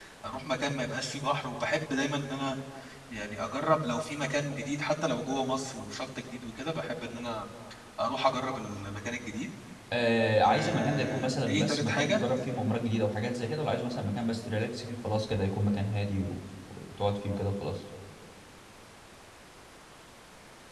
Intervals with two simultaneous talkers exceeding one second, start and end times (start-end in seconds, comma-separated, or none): 10.4-12.2